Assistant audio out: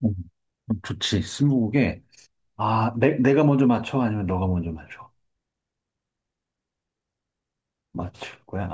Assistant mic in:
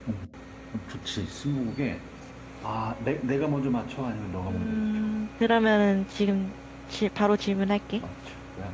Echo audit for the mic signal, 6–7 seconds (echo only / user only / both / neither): user only